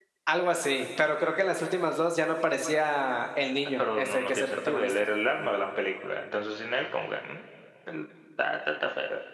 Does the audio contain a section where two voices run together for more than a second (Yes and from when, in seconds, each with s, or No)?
Yes, from 3.8 s